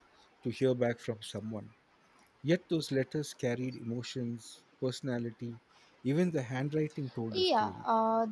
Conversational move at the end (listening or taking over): taking over